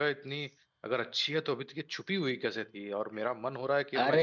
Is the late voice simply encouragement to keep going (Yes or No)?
No